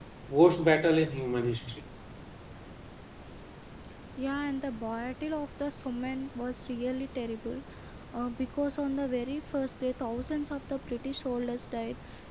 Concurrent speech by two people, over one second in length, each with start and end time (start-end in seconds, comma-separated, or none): none